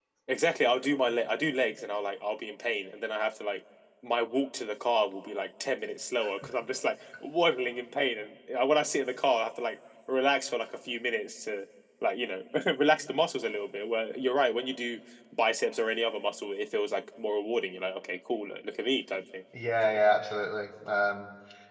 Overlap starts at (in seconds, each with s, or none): none